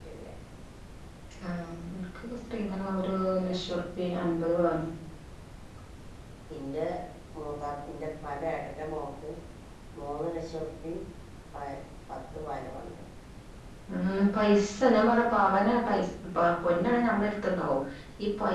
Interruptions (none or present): none